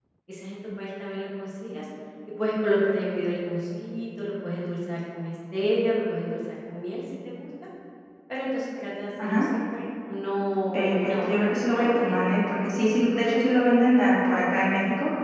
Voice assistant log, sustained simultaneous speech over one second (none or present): present